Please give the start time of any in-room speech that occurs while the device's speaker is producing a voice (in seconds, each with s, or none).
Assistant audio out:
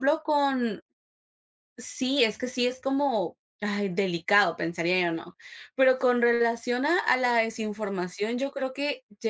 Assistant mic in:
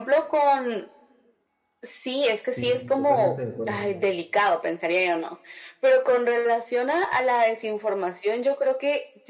2.4 s